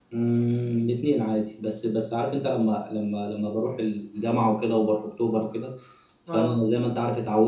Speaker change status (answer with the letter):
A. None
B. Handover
A